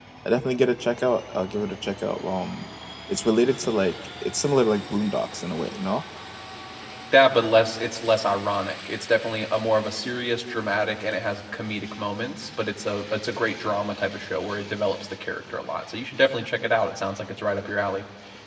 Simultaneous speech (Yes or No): No